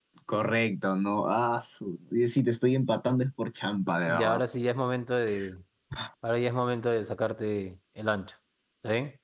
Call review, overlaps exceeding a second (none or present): none